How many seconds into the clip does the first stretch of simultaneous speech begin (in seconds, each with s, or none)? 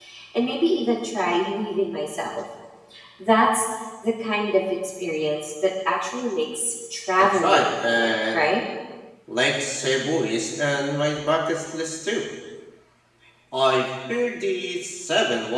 7.2 s